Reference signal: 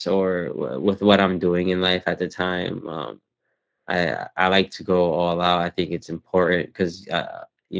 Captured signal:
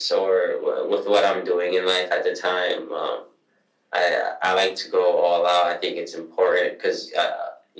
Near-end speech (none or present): none